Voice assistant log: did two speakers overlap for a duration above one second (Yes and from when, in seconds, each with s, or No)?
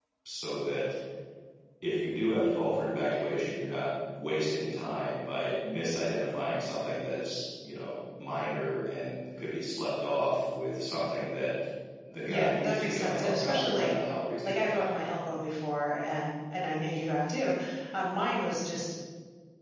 Yes, from 12.2 s